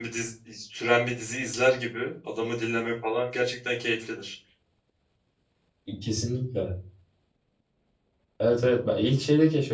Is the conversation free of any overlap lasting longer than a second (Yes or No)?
Yes